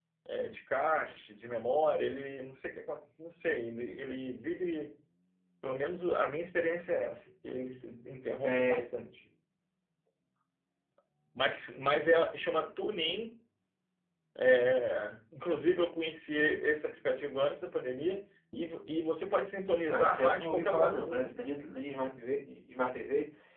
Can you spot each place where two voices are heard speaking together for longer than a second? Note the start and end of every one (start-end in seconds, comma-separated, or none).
19.9-21.5